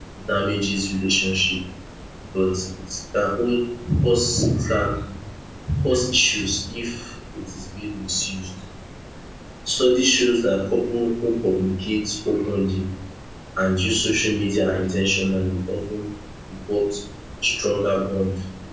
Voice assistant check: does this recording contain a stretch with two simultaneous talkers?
No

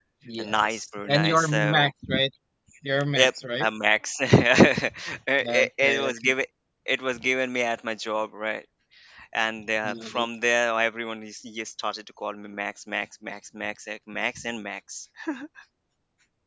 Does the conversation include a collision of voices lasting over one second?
Yes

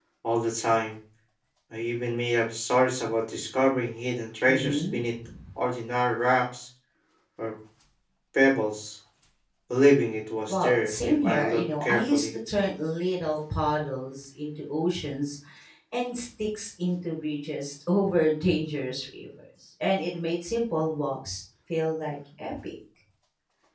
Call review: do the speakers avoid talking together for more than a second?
No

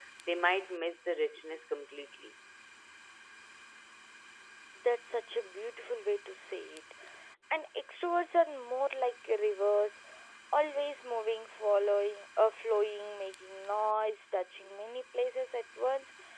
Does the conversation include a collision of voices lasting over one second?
No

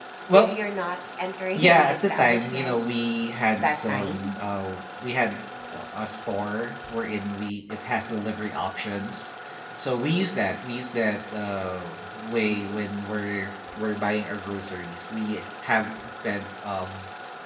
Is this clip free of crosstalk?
No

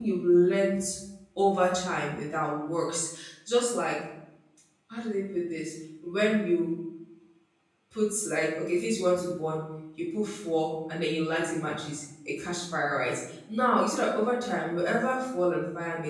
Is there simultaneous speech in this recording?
No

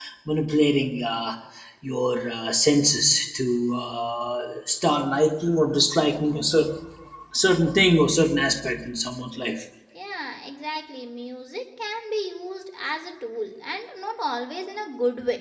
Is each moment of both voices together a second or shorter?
Yes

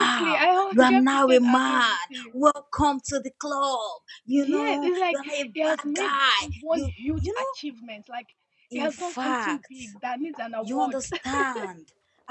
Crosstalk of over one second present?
Yes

